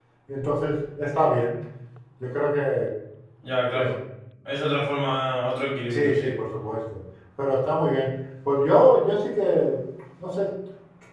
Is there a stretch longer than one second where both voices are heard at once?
No

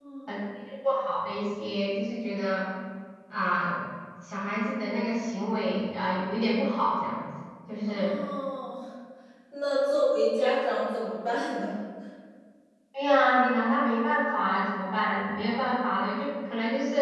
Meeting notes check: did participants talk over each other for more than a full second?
No

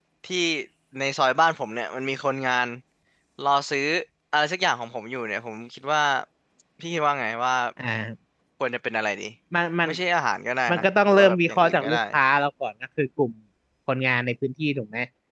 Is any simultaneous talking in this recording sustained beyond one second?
Yes, from 10.7 s

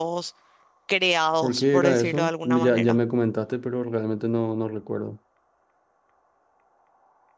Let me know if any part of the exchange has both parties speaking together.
Yes, from 1.4 s

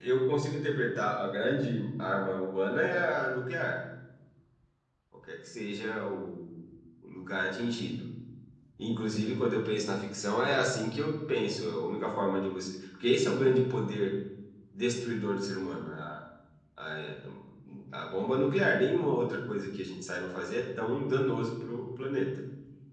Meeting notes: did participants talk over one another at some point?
No

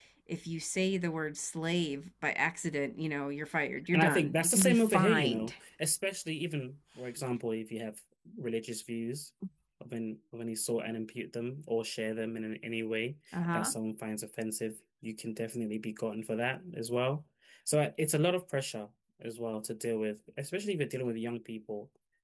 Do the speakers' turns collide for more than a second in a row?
Yes, from 3.9 s

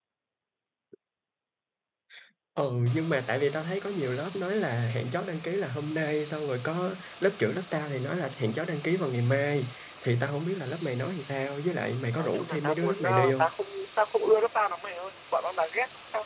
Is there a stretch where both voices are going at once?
Yes, from 11.8 s

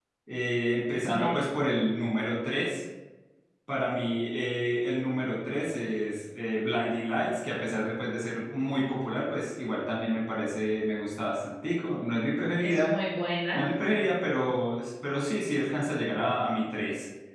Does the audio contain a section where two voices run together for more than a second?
No

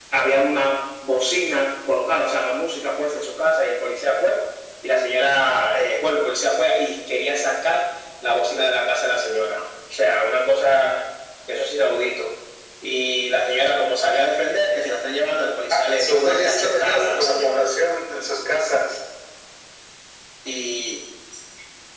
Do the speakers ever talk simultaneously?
Yes, from 16.0 s

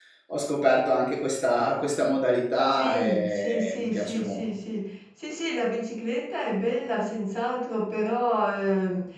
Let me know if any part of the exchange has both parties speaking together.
Yes, from 2.7 s

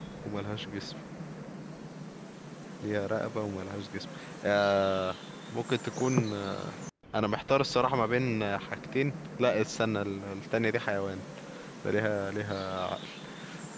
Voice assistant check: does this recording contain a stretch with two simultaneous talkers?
No

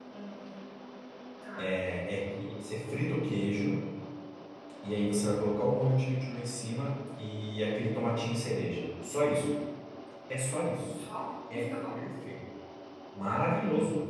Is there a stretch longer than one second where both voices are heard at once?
No

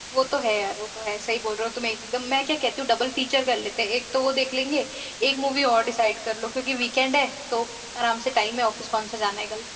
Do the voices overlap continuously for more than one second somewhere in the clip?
No

